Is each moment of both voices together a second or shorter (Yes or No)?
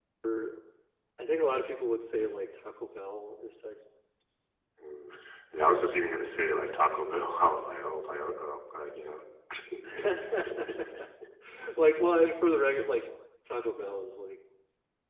Yes